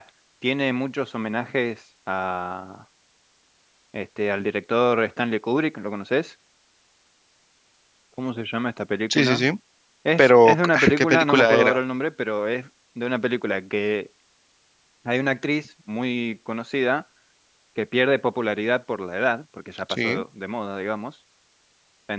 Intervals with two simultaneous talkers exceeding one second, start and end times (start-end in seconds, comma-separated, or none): 10.2-11.7